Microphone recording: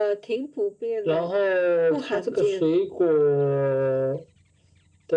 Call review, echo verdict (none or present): present